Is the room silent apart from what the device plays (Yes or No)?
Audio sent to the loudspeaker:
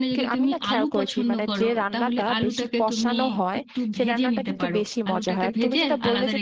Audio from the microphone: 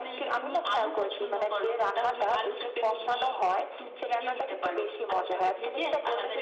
Yes